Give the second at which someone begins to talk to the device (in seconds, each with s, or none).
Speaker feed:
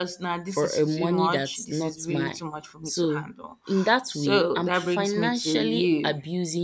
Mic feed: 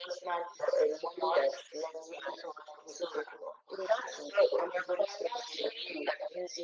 none